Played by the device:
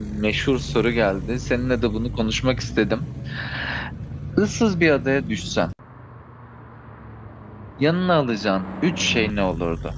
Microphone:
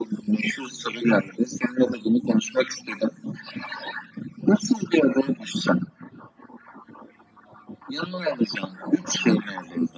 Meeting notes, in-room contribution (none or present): none